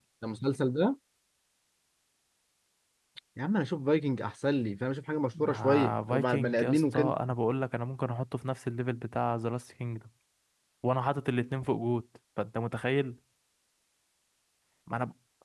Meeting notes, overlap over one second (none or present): present